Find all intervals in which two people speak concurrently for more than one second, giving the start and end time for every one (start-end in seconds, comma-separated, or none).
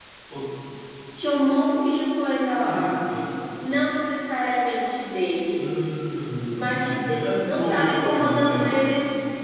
6.5-8.9